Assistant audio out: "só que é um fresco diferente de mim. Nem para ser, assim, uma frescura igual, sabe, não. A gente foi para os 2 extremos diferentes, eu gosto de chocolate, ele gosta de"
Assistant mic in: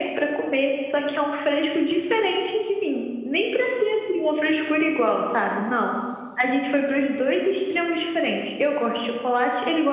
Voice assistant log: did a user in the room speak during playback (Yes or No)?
No